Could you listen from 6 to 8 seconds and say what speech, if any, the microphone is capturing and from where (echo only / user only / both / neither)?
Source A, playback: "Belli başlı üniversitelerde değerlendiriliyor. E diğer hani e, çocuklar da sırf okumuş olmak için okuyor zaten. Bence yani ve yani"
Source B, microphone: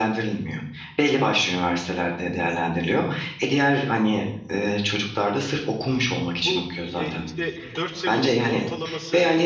both